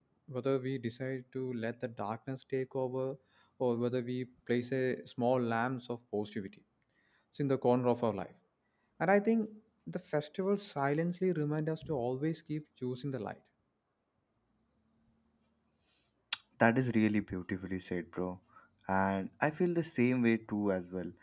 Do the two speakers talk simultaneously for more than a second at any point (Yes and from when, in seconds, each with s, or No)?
No